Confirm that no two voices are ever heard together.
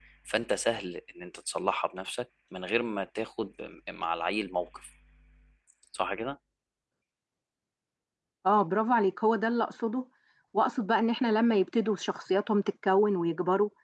Yes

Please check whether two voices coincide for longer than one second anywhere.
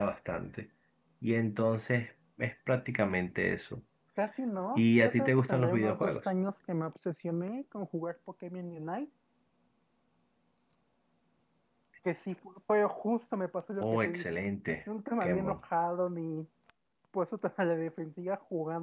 Yes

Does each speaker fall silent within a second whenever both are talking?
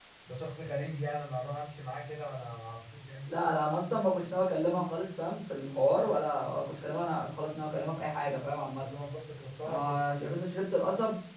Yes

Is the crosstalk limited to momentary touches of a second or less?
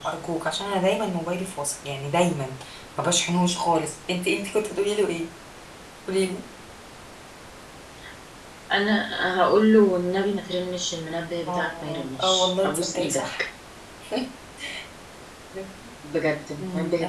No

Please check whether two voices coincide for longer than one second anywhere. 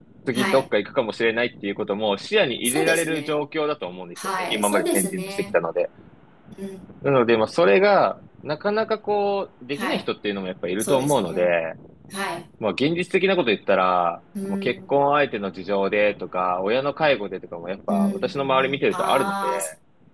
Yes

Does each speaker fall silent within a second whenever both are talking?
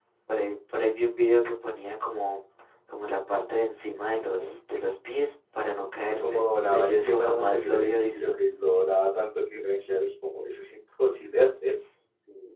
No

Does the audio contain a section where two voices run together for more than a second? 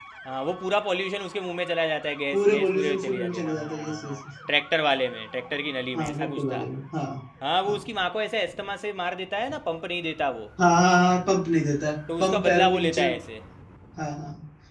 Yes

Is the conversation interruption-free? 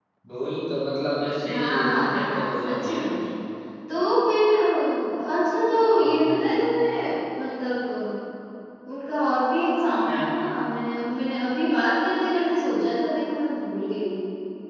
No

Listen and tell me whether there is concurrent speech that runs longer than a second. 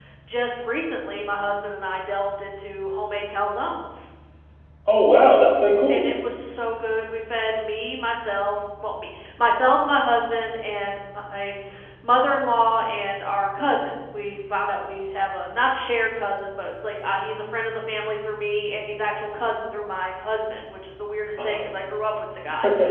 No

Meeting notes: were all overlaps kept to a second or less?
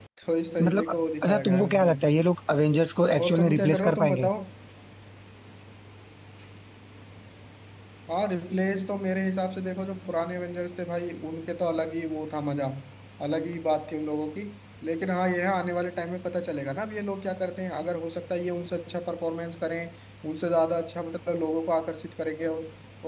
No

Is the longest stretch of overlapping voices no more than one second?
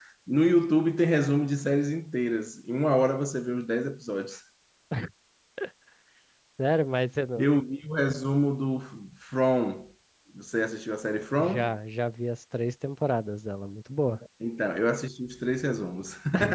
Yes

